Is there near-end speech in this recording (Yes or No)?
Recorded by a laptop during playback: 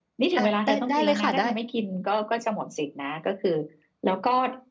Yes